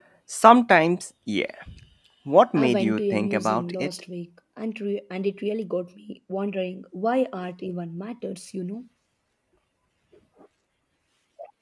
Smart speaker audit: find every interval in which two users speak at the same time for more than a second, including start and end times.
2.5-3.9

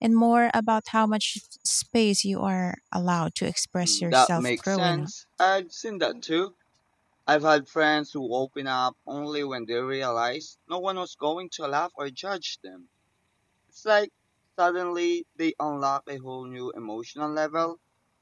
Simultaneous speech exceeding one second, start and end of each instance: 3.8-5.1

